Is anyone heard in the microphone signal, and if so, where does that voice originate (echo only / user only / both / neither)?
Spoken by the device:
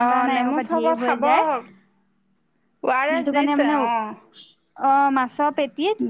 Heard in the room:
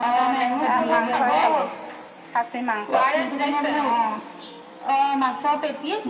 both